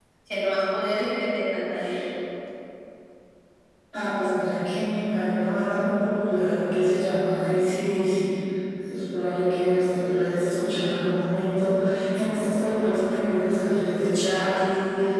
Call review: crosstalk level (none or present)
none